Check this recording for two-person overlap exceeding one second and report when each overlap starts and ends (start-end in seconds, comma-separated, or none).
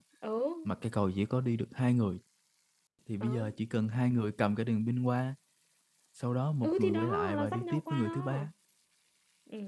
6.6-8.5